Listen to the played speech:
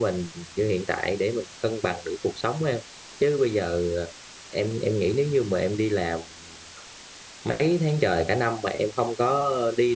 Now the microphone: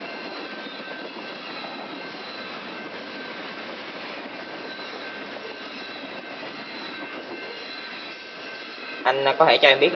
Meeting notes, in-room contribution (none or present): present